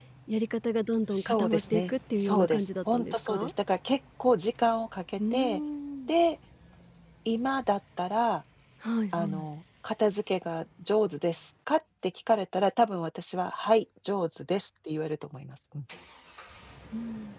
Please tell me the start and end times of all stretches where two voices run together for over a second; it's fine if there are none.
1.1-3.5

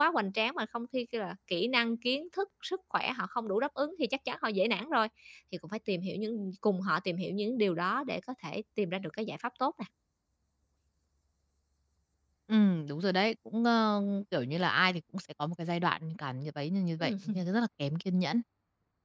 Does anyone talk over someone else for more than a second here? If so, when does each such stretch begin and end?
none

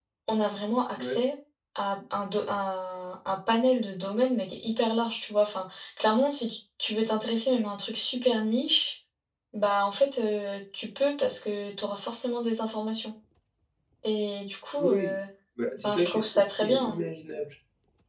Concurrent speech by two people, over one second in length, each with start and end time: 15.8-17.0

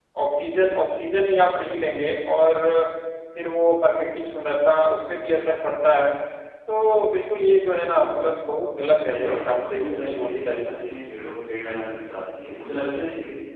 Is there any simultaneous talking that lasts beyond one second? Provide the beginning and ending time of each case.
9.1-10.9

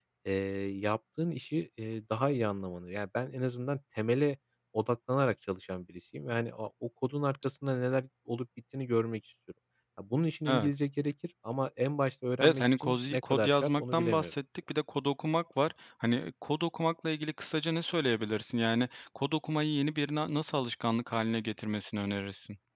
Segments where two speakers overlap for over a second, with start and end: 12.4-14.3

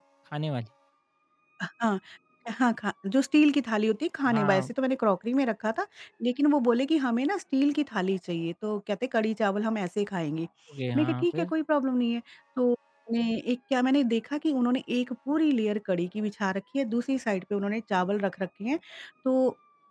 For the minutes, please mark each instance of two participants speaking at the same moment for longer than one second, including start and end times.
none

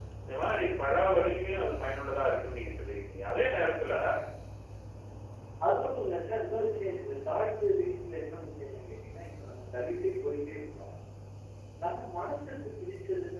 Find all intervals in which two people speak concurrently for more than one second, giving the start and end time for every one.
none

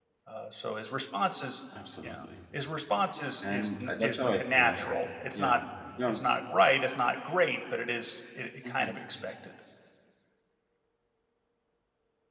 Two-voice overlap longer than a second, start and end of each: 3.4-4.8

